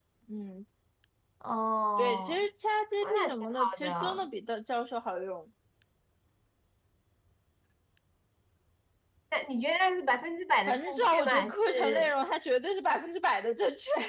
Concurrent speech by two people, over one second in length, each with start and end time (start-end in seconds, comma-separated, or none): 3.0-4.3, 10.7-12.1